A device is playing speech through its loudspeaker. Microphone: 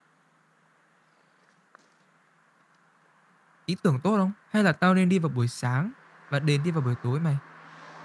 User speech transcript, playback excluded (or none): ý tưởng tốt không? Hay là tao nên đi vào buổi sáng và đến đi vào buổi tối mày?